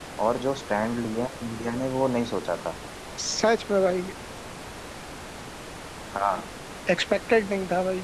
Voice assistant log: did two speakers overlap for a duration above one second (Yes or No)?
No